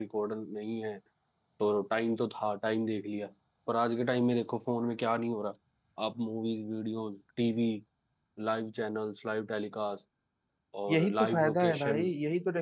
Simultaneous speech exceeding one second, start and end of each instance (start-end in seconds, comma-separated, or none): 10.9-12.1